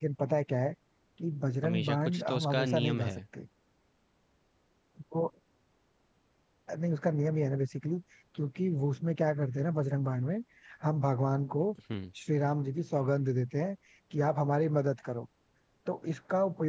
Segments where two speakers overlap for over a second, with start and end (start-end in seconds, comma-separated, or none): 1.6-3.2